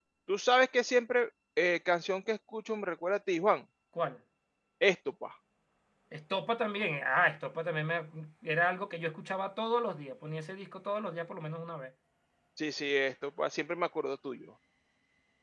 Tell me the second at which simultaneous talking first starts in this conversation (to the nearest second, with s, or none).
none